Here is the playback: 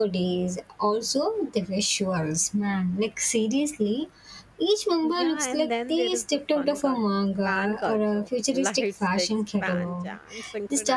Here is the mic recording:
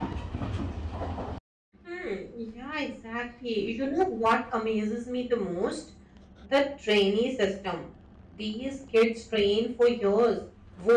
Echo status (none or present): none